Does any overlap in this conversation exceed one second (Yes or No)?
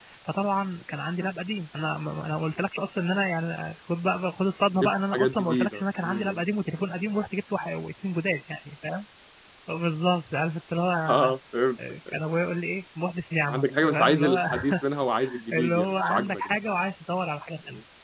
Yes